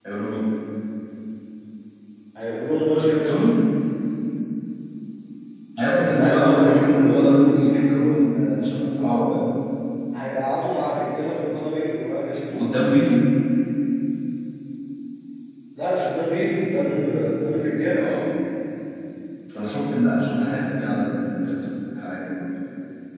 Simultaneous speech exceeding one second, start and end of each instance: 5.9-7.5

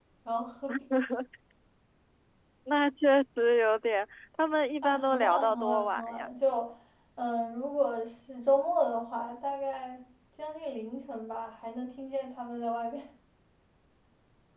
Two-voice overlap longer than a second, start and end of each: 4.8-6.3

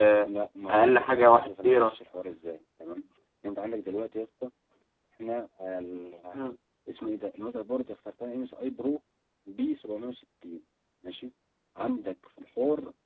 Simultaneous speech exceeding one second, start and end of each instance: 0.7-1.9

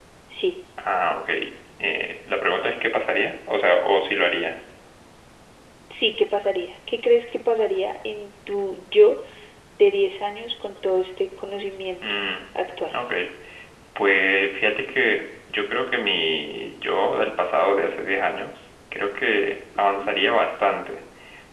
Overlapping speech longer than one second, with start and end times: none

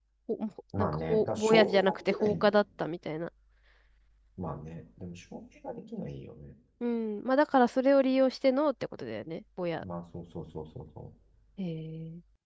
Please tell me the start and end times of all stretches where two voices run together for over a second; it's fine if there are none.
0.8-2.4

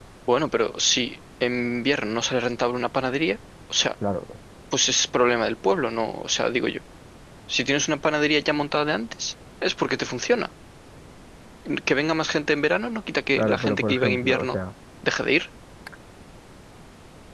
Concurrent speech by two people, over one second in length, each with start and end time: 13.4-14.6

